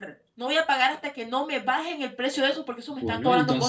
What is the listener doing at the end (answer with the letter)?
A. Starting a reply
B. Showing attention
A